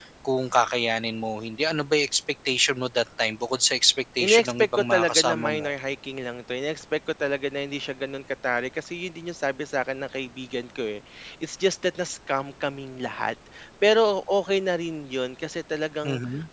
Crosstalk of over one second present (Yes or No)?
Yes